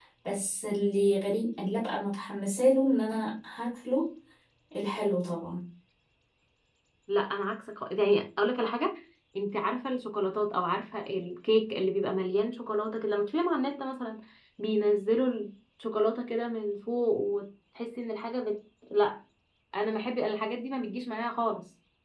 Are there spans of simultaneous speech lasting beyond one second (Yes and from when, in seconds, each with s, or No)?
No